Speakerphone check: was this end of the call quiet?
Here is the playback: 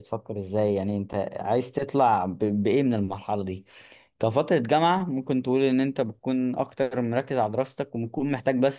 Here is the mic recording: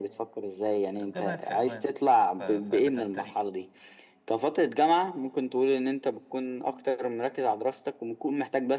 No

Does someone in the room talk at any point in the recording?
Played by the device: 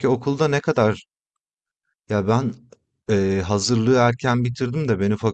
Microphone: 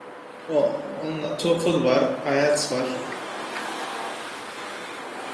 Yes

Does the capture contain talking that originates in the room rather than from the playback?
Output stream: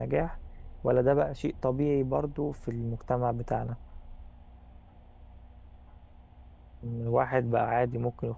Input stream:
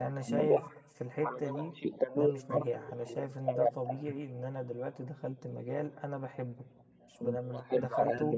Yes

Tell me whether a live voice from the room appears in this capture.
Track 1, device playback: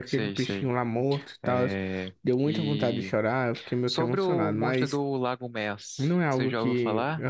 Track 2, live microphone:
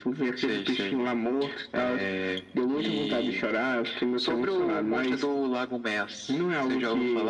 No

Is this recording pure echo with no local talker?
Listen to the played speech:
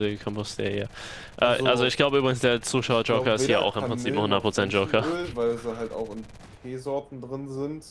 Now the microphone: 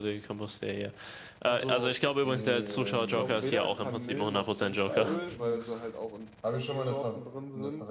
No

